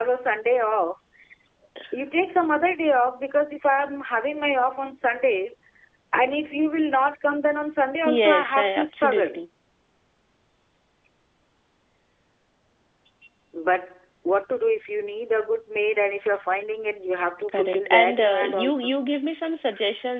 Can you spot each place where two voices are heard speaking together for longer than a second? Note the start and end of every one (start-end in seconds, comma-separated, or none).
8.1-9.4, 17.5-18.9